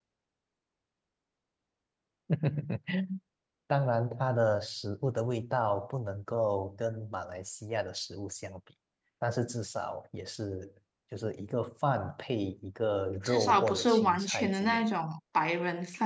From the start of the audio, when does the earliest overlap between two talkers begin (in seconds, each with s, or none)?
13.2 s